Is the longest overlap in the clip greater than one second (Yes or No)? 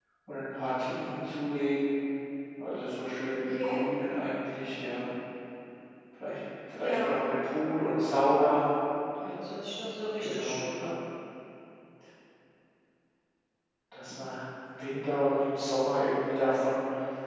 No